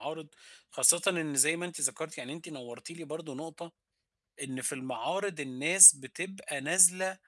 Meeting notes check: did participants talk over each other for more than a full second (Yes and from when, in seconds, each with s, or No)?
No